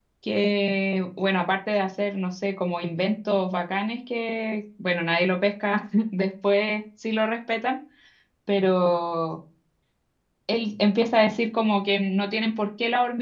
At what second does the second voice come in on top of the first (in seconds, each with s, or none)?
none